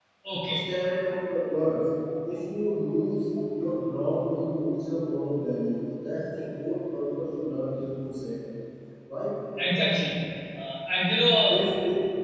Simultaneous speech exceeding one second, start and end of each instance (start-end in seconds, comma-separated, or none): none